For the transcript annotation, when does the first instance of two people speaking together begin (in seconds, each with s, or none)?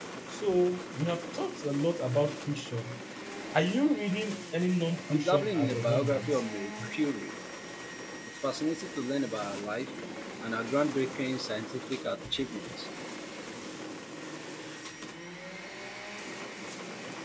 5.1 s